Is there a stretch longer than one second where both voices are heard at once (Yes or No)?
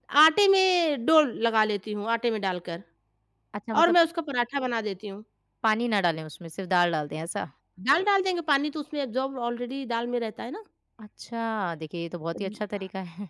No